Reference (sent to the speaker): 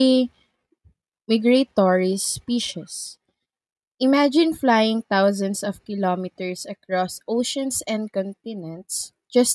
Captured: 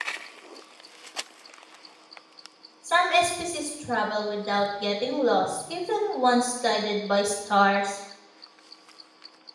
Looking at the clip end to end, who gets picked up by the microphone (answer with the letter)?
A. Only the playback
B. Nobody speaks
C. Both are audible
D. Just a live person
D